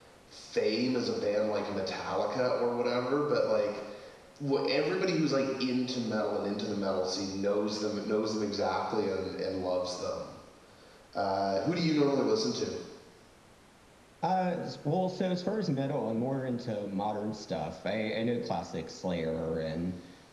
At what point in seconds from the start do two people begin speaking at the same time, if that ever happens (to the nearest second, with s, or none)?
none